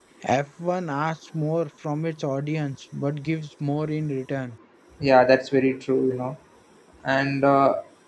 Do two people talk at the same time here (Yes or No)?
No